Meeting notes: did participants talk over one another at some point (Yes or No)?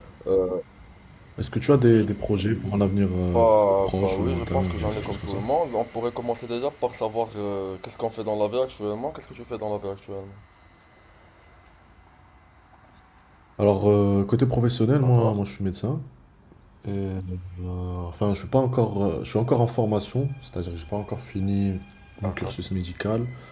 Yes